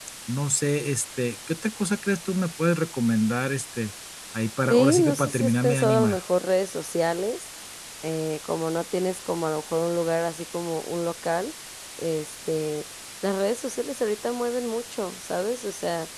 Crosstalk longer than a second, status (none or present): present